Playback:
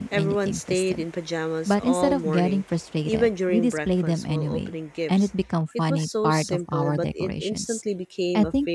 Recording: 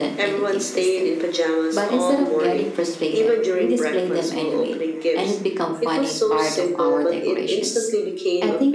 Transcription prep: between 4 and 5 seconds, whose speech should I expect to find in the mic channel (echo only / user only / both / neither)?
echo only